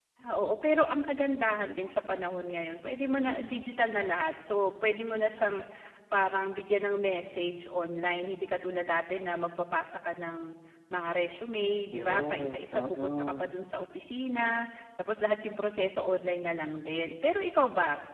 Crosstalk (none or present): present